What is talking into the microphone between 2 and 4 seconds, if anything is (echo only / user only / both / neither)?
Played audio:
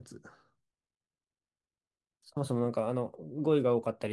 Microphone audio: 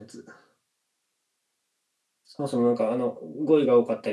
echo only